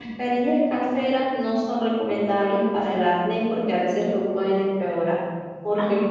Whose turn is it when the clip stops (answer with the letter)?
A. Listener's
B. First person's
B